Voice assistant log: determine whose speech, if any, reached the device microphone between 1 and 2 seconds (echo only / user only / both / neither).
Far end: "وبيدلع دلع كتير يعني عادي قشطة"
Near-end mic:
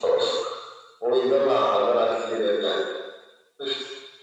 echo only